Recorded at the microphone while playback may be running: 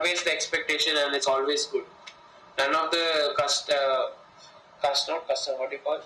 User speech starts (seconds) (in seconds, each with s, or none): none